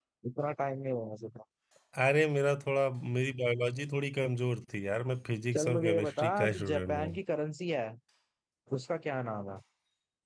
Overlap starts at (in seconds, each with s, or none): 5.5 s